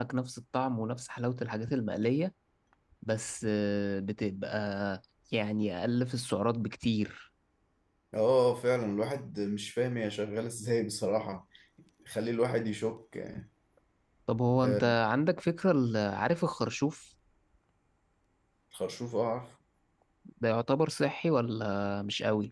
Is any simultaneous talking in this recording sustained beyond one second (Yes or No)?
No